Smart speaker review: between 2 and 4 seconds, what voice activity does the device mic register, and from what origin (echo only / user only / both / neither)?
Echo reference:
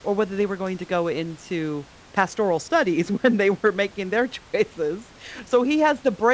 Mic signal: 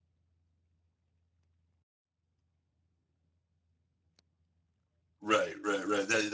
neither